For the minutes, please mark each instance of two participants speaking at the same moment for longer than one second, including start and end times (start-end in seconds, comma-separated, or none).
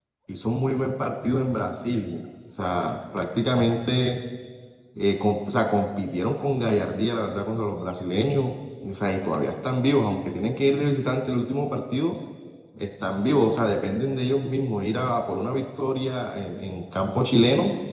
none